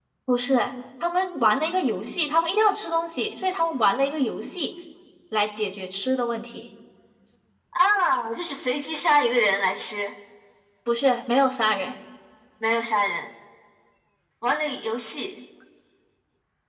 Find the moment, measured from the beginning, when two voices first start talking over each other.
none

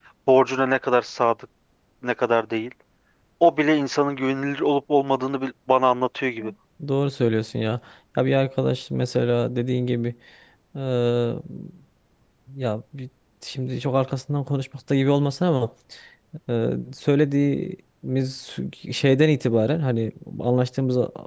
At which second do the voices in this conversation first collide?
none

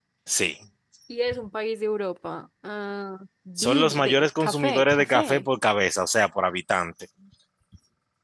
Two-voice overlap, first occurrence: 3.6 s

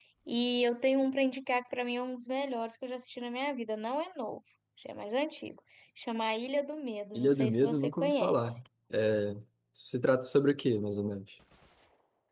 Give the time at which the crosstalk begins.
7.1 s

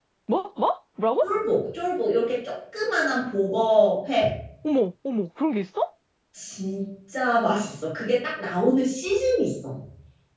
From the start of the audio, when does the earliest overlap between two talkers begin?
none

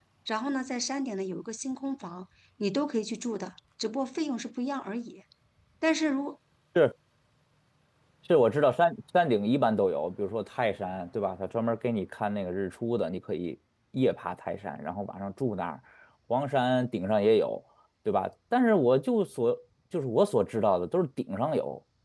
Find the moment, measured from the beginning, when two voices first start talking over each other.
none

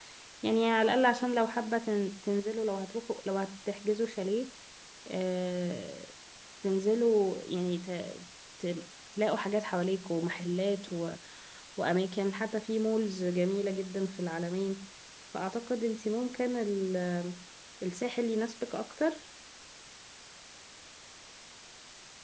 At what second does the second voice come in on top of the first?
none

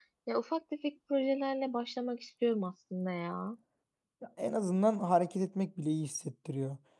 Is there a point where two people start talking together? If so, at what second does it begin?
none

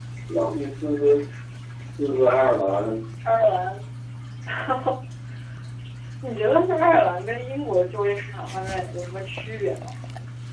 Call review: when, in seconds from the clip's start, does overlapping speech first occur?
none

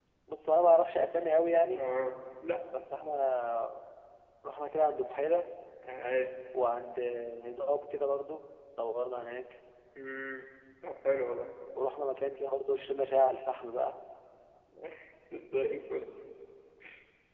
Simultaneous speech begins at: none

